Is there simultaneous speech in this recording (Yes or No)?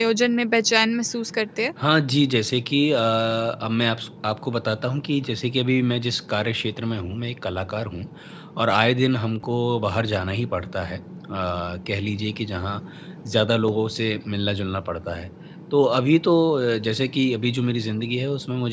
No